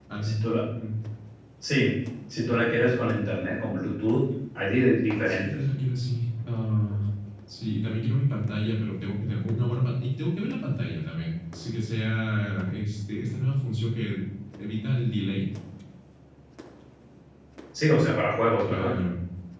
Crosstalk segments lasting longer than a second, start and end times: none

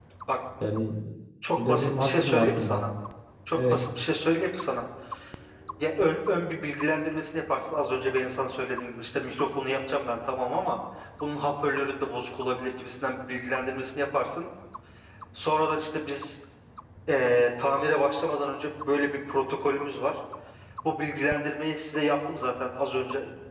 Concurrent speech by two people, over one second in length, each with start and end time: 1.6-2.8

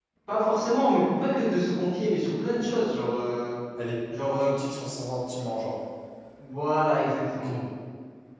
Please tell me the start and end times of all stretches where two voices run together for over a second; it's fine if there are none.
none

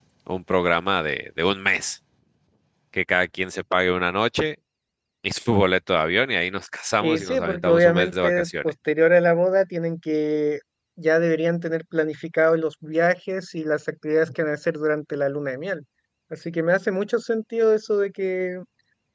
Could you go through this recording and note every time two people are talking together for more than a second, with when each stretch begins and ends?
7.0-8.7

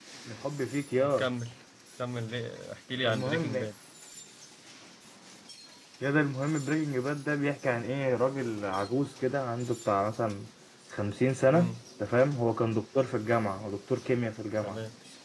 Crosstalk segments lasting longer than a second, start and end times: none

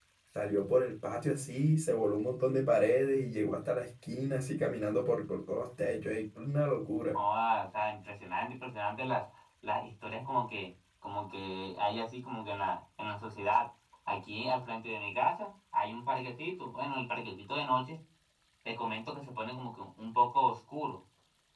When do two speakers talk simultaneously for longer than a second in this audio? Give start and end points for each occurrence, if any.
none

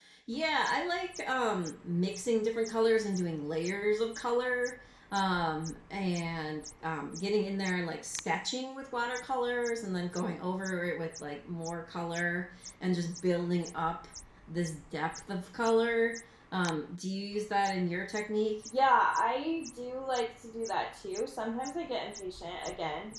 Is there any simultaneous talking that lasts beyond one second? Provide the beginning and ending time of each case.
none

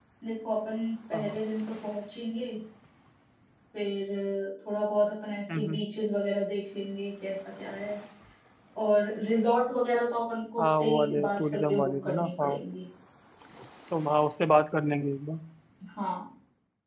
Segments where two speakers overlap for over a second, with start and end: 10.6-12.5

